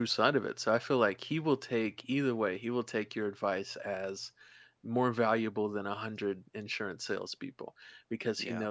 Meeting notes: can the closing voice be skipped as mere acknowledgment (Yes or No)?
Yes